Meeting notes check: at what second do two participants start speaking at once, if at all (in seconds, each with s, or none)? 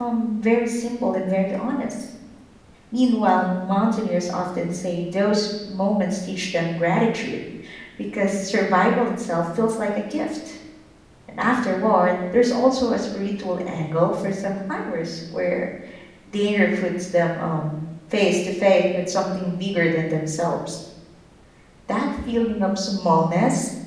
none